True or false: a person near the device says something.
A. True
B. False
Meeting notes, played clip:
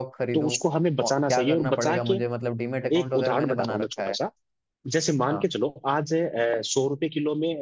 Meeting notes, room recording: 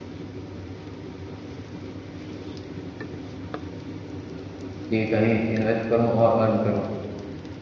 A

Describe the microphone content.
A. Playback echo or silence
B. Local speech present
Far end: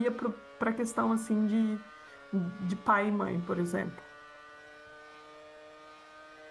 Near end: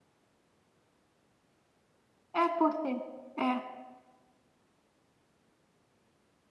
B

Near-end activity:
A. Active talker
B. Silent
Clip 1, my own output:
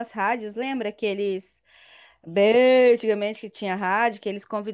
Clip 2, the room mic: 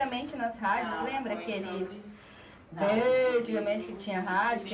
A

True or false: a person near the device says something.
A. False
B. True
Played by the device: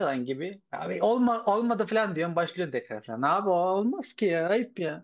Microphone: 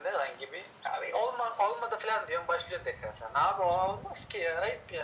A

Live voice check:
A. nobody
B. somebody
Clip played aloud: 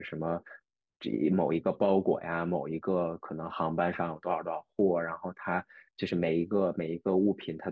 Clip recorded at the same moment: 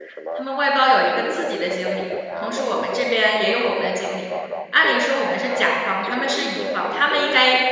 B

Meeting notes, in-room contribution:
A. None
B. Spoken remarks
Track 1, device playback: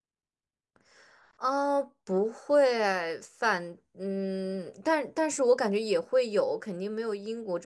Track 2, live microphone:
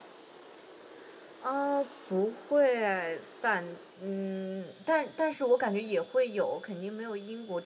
A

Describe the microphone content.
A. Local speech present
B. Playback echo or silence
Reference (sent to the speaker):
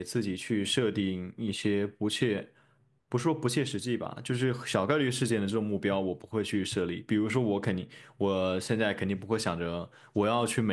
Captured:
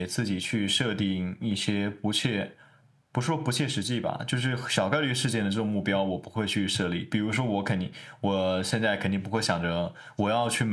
B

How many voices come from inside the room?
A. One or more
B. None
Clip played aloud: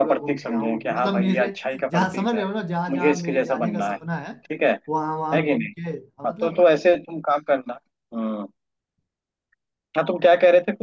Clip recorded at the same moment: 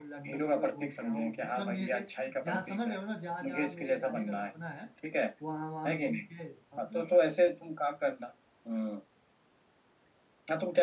B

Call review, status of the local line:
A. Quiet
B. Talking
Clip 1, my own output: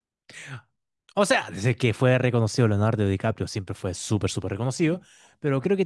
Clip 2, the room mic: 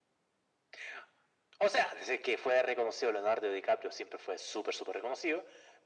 A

